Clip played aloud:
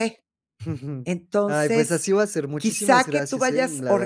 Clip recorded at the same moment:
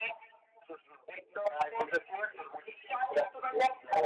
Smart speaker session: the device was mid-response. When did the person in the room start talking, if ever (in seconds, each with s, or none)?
none